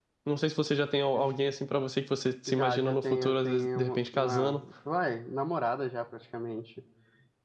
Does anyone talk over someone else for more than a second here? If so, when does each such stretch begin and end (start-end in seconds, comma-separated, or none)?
2.5-4.6